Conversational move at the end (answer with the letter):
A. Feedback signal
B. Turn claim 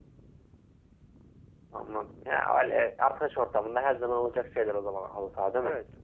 B